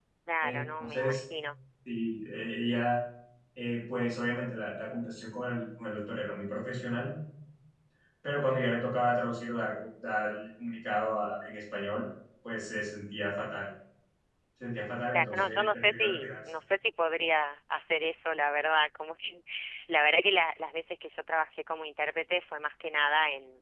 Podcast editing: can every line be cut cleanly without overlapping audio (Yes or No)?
No